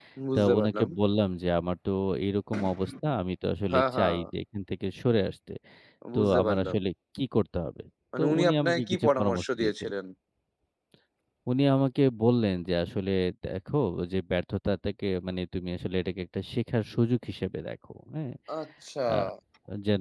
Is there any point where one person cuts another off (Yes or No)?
Yes